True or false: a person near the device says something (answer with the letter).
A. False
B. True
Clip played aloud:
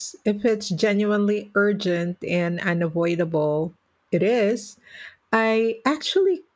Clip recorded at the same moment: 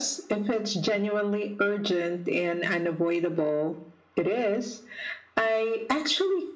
A